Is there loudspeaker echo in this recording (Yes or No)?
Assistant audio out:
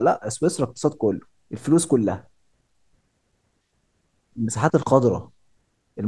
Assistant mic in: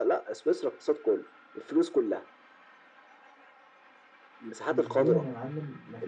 Yes